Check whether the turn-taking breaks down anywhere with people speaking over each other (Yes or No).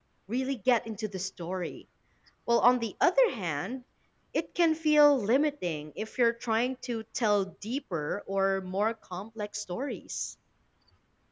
No